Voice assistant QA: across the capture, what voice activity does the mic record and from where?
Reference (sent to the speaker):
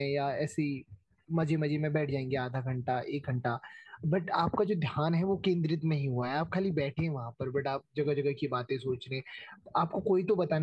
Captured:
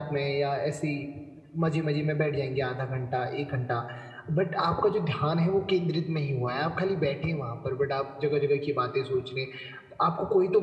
echo only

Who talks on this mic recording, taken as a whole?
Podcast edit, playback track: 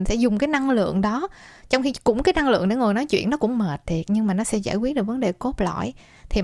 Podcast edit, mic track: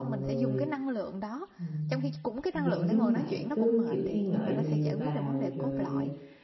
both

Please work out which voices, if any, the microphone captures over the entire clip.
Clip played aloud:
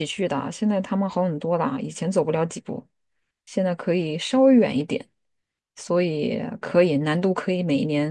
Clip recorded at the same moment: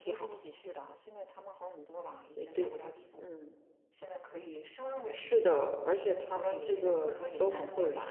both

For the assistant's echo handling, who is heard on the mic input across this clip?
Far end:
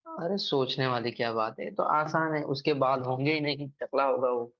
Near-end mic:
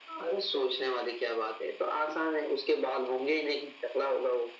echo only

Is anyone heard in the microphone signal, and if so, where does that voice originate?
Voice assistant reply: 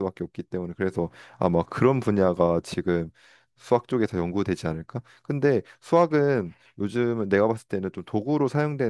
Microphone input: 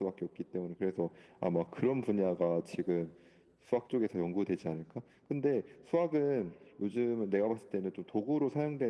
echo only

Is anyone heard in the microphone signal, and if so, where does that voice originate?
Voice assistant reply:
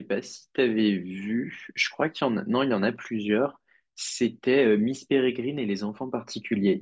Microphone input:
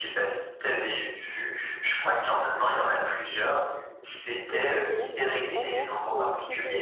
both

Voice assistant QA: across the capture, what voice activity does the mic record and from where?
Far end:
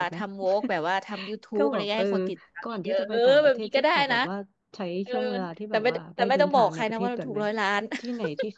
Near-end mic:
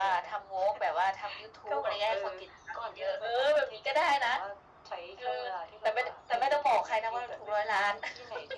echo only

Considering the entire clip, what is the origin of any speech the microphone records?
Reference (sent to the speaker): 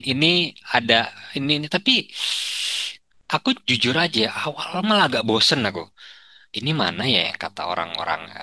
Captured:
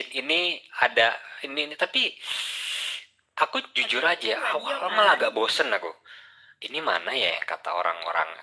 both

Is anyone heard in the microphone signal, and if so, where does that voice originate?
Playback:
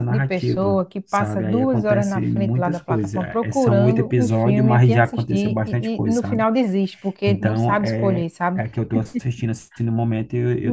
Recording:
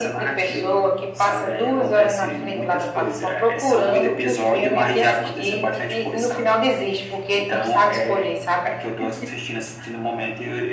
echo only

